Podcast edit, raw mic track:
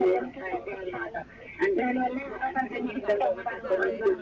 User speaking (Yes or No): Yes